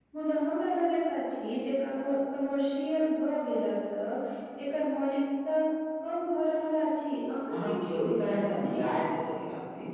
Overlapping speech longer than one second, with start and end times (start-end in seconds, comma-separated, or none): 7.5-8.8